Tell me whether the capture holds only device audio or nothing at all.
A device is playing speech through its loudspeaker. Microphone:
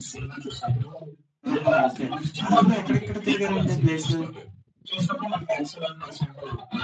No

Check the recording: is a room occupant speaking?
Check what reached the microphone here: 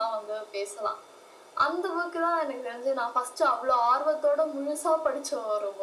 No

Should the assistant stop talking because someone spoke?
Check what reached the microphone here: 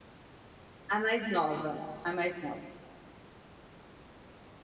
Yes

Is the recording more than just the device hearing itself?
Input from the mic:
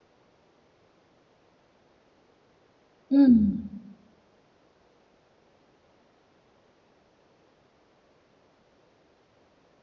Yes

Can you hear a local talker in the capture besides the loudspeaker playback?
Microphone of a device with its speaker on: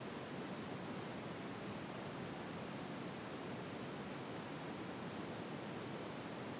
No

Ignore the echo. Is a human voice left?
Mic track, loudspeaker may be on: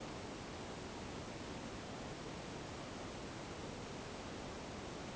No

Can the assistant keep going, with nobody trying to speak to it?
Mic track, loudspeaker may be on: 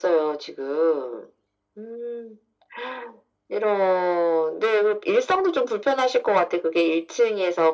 Yes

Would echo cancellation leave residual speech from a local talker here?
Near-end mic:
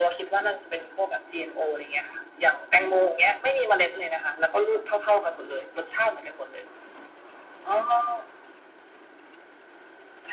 No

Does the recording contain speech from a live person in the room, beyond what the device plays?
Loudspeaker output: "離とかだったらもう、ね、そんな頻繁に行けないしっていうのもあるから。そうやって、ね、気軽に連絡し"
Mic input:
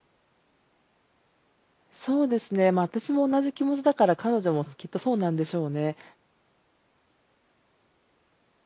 Yes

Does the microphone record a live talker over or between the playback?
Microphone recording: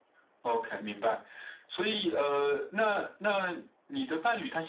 No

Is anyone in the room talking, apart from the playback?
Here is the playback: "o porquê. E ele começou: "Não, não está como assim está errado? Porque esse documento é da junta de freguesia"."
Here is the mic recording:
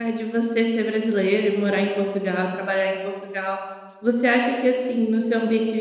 Yes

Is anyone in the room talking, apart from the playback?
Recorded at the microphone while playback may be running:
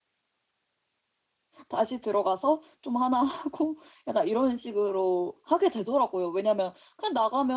Yes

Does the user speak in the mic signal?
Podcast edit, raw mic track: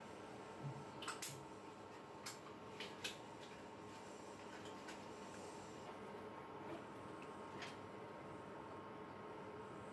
No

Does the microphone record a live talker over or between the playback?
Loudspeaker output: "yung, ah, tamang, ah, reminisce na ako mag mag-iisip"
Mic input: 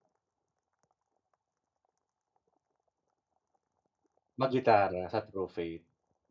Yes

